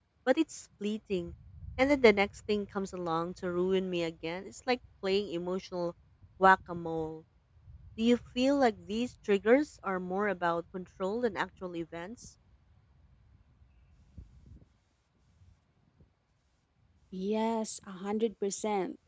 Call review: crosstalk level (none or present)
none